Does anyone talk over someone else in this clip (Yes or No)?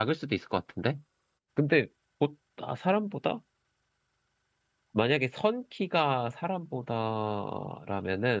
No